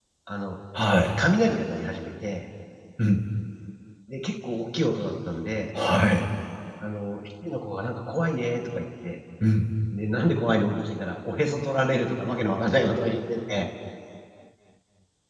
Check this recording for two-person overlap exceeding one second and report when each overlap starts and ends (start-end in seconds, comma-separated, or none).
none